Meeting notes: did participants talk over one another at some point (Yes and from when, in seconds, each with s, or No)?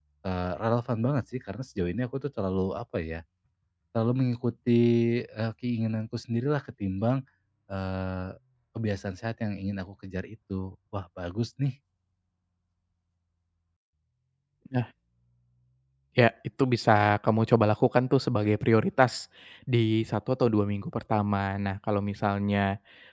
No